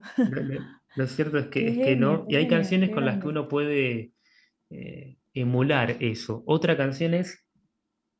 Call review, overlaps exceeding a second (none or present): present